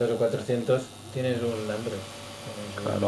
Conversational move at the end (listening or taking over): taking over